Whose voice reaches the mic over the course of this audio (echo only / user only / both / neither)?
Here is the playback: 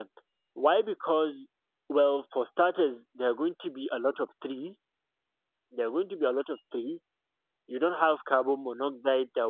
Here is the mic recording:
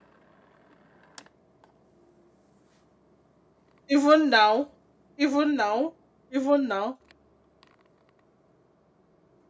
user only